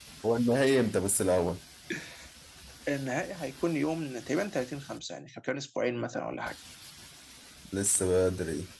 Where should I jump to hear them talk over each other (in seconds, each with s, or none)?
none